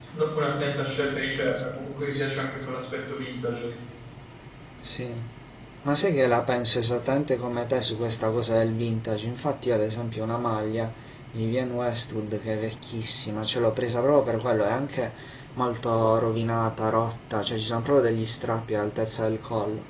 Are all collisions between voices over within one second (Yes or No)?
Yes